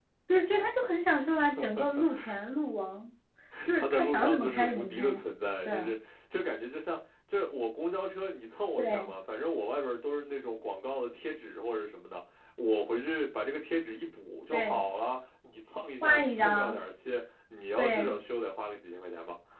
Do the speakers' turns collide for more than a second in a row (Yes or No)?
Yes